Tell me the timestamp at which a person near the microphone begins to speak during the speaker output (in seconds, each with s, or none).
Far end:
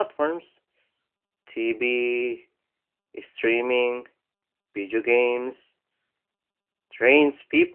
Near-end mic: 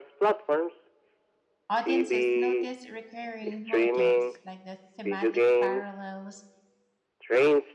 1.7 s